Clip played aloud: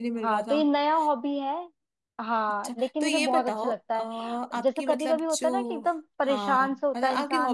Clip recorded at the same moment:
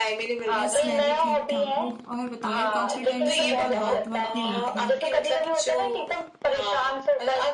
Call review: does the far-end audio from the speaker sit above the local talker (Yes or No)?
Yes